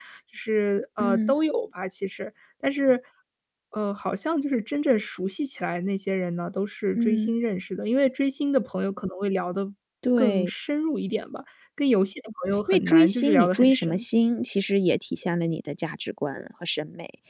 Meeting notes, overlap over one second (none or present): present